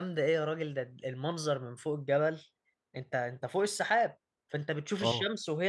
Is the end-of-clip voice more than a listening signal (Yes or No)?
No